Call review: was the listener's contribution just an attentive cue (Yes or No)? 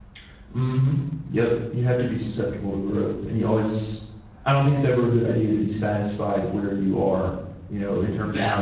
Yes